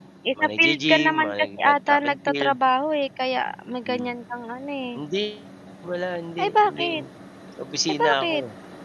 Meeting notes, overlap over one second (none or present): present